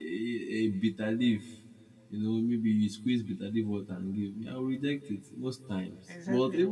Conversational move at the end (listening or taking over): listening